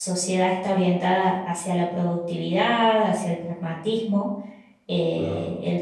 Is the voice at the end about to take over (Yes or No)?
No